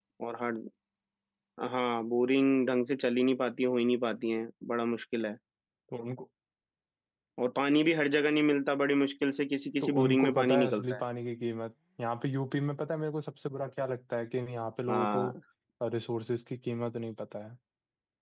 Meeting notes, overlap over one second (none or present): present